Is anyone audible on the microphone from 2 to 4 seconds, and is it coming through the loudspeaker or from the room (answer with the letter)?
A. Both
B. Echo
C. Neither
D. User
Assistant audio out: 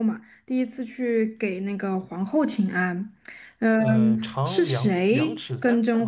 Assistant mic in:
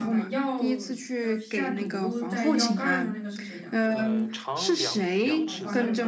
A